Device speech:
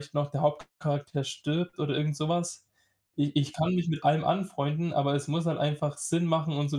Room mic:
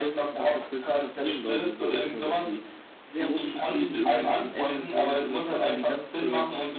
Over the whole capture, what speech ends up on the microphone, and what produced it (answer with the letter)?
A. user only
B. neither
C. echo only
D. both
D